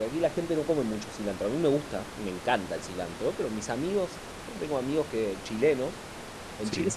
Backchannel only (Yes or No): Yes